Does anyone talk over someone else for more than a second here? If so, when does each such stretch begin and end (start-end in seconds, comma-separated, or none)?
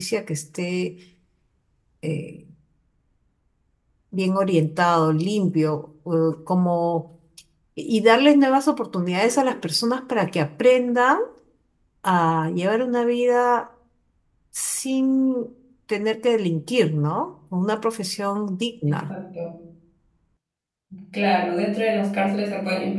none